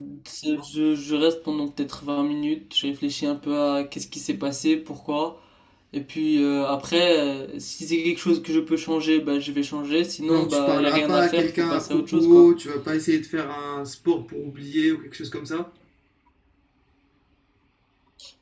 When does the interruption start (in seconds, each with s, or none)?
10.3 s